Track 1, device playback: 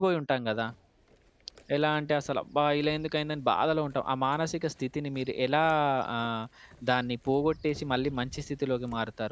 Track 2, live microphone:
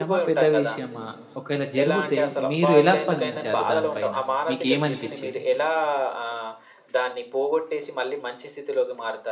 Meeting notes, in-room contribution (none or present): present